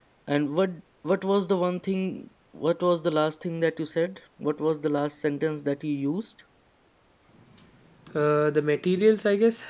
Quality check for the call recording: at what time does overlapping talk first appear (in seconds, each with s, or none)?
none